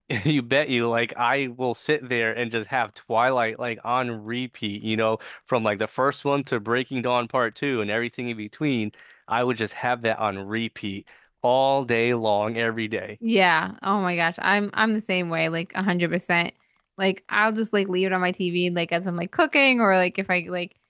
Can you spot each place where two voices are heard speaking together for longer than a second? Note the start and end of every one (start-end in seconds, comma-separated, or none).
none